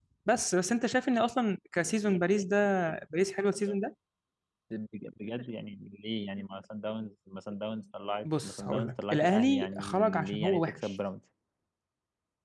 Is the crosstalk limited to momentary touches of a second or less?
No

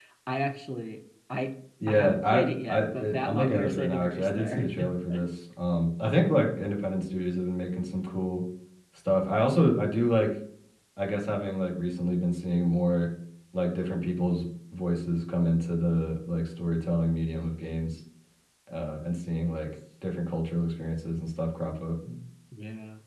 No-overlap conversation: No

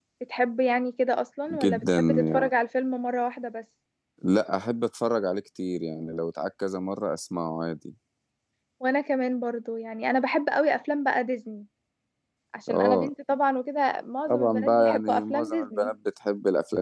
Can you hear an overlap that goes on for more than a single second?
Yes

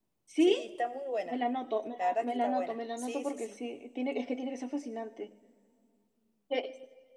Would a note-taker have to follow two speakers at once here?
Yes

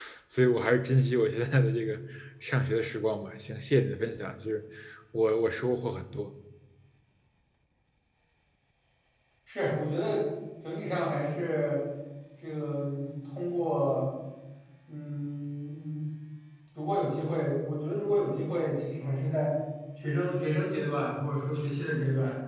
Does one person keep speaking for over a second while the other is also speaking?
No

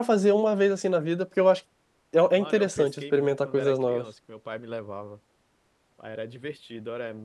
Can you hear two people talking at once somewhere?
Yes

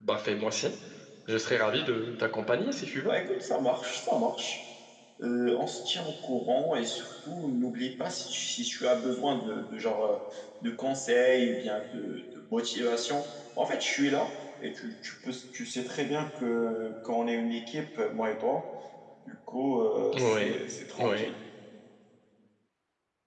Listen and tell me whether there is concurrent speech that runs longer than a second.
No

